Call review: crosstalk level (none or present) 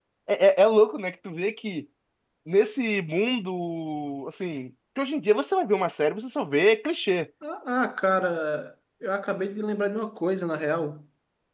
none